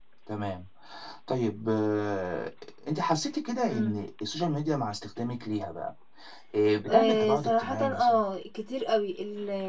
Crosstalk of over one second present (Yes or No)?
Yes